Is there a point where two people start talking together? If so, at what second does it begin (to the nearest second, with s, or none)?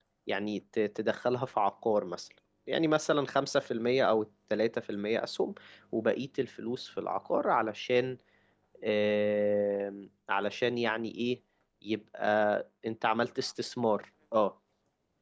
none